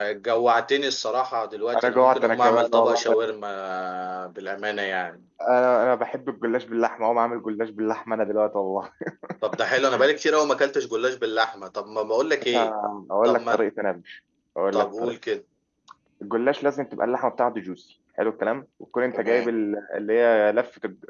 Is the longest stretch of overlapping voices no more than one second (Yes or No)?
No